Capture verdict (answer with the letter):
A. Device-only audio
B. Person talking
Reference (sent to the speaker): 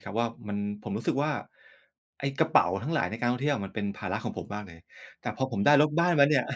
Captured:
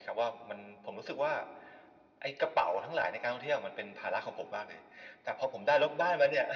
A